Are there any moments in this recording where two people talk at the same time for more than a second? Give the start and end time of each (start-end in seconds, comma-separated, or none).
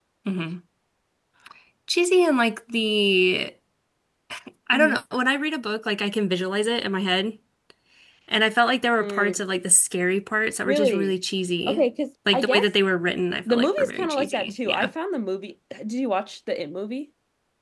13.5-14.9